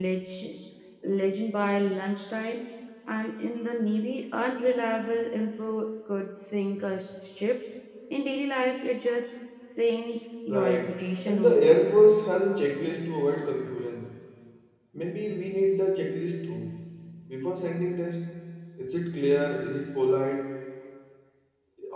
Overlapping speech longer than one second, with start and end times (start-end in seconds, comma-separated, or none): 10.5-11.9